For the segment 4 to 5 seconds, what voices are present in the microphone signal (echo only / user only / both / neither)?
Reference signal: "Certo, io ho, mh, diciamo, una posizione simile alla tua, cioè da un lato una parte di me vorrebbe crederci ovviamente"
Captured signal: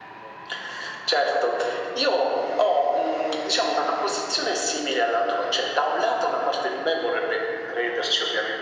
echo only